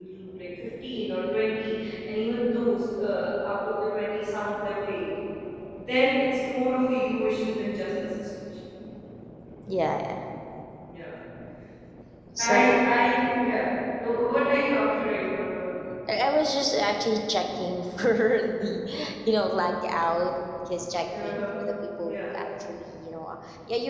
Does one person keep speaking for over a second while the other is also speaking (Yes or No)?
No